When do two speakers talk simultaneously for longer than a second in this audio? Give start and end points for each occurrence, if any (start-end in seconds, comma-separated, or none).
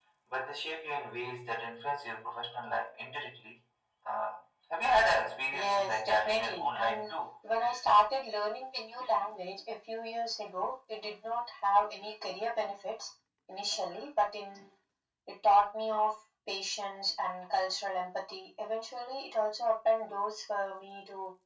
5.5-7.1